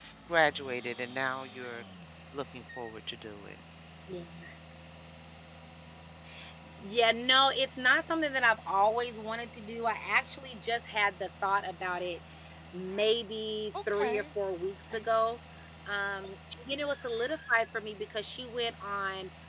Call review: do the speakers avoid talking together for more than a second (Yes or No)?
Yes